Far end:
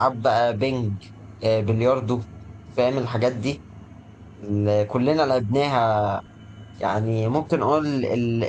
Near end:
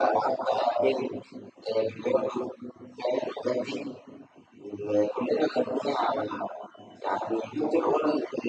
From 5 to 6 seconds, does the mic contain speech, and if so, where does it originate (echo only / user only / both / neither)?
echo only